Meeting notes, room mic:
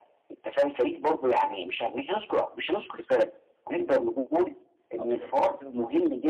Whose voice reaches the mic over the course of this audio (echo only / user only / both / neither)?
both